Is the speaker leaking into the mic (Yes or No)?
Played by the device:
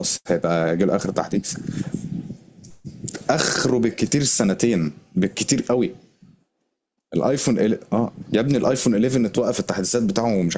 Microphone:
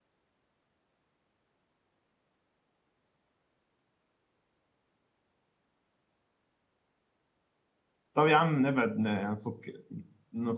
No